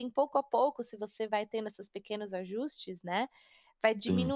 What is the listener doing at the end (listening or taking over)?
listening